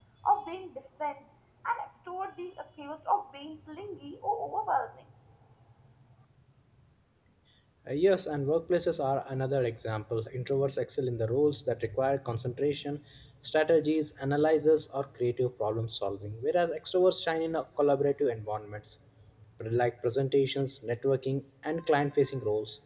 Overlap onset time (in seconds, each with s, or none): none